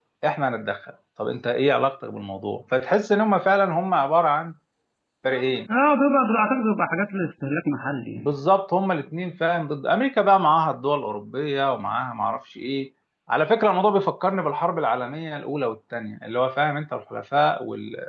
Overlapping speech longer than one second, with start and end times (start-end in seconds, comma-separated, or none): none